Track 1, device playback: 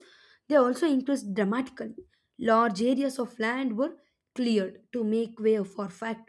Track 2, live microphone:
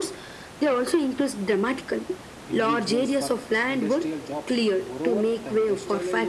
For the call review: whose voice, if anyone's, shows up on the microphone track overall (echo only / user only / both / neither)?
both